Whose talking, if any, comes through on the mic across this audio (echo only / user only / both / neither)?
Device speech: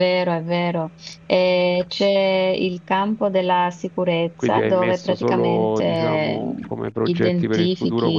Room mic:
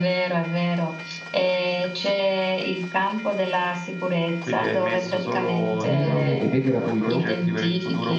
both